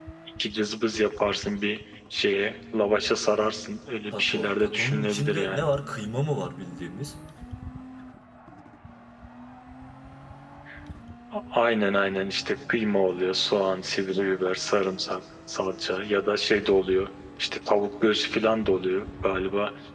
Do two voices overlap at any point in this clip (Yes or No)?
Yes